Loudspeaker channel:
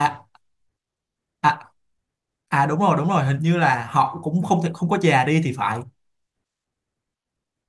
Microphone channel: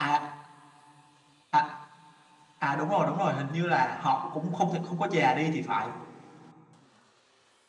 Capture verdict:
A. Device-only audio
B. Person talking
A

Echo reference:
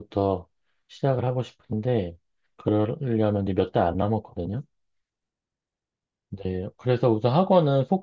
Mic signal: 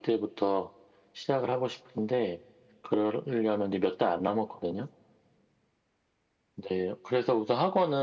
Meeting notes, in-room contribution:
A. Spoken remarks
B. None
B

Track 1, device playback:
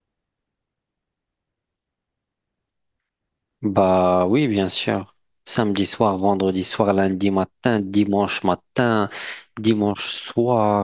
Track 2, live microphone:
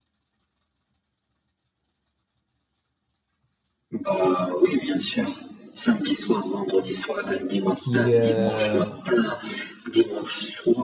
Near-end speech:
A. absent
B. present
B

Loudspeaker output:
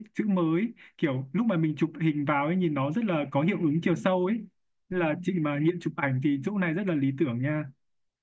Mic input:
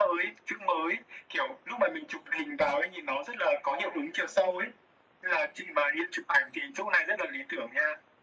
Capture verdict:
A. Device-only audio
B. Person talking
A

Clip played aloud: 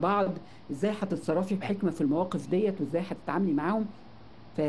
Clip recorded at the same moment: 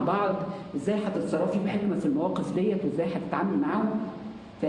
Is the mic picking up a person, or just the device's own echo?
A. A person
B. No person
B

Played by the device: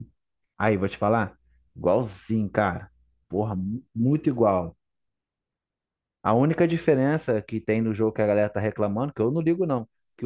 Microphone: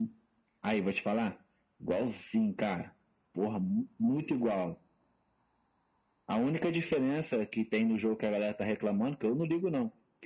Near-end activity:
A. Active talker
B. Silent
B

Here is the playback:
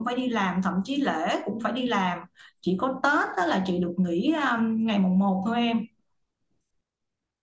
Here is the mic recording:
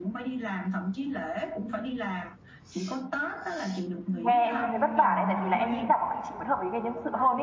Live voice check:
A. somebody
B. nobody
A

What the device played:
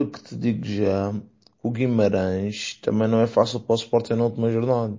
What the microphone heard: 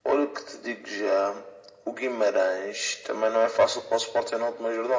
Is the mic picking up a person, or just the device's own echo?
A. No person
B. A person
A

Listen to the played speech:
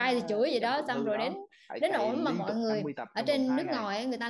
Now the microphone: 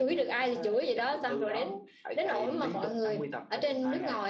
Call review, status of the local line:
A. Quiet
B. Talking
A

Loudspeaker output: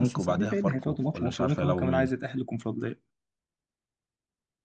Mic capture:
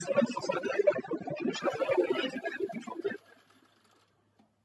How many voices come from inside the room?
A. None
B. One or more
A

